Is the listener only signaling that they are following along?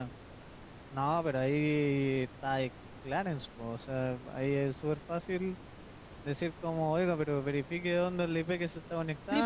No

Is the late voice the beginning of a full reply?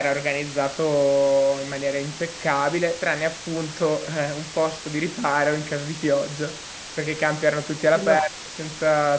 No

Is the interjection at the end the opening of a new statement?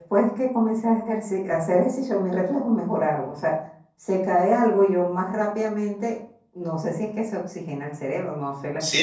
Yes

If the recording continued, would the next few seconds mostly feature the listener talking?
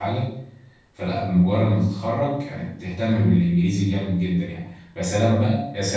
No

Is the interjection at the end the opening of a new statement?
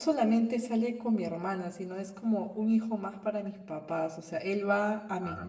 No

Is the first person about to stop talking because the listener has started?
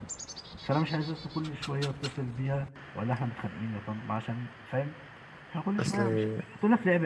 No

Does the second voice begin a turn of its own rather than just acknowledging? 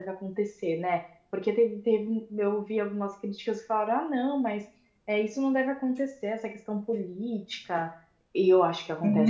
Yes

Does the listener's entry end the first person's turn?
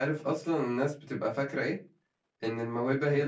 No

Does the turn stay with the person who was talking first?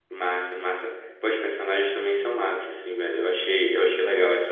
Yes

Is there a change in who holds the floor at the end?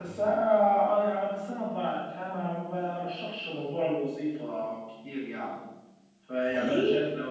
No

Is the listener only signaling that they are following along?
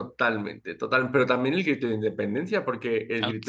Yes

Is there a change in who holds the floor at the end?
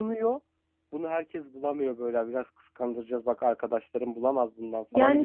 Yes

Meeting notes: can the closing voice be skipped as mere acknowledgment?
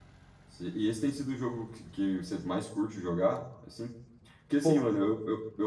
Yes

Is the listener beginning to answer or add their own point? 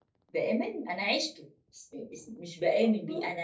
No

